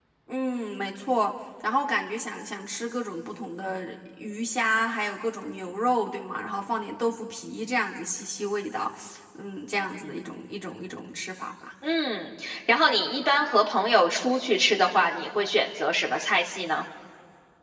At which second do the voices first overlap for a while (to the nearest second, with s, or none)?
none